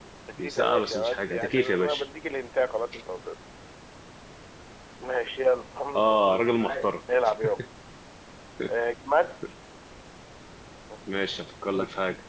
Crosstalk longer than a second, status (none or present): present